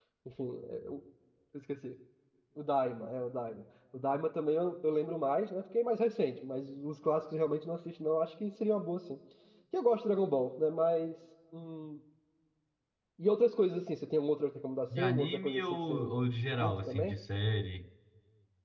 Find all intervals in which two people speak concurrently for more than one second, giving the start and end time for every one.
14.9-16.1

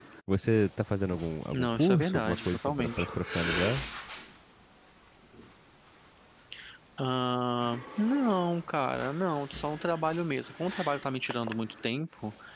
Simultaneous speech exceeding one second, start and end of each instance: 1.5-3.1

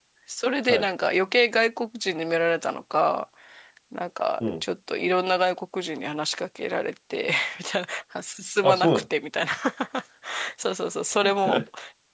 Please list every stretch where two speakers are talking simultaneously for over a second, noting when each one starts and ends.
none

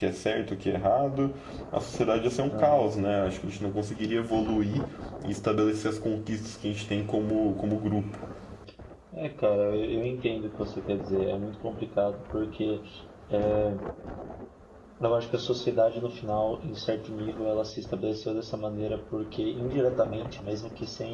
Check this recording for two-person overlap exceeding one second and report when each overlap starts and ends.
none

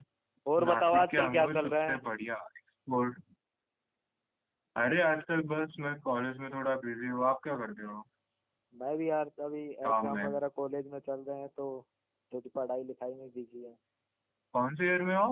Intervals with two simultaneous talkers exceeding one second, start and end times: 0.6-2.0

